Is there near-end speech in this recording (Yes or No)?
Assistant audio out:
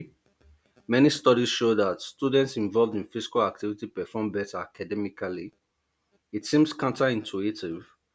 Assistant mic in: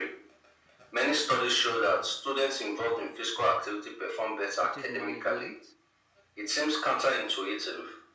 Yes